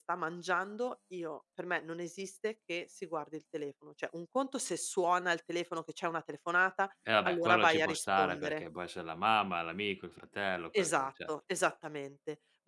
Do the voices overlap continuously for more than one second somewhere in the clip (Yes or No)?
Yes